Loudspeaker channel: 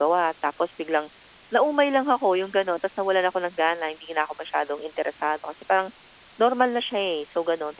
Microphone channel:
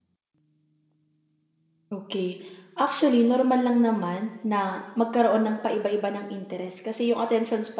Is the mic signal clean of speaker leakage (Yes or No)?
Yes